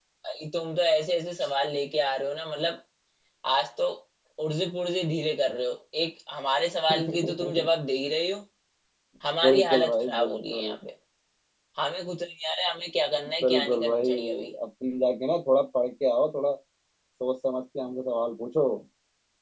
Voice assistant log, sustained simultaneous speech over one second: present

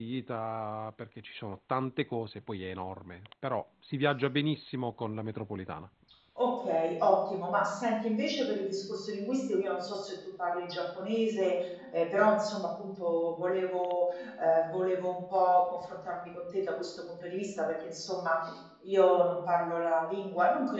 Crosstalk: none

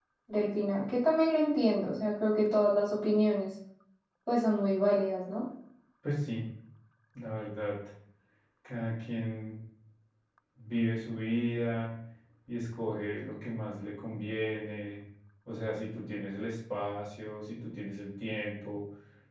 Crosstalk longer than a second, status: none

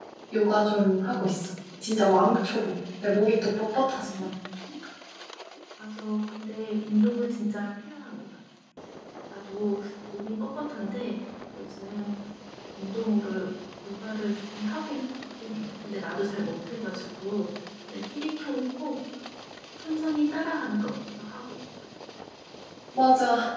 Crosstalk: none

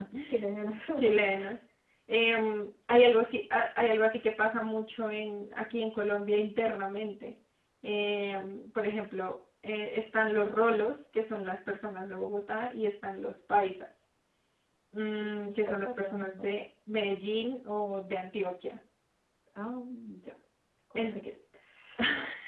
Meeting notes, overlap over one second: present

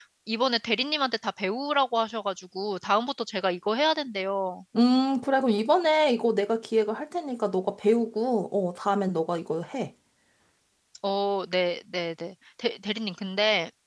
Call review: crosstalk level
none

